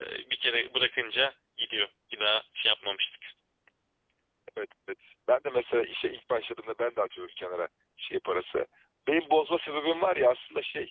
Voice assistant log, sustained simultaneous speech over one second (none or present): none